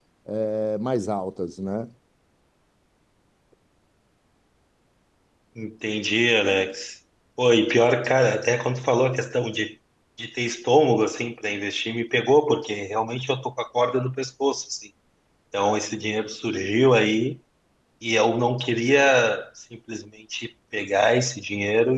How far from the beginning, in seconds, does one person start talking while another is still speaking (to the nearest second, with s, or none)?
none